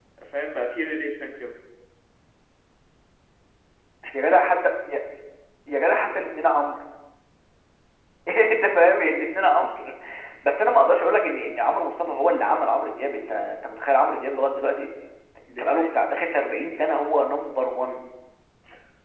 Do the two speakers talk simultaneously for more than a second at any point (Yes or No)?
No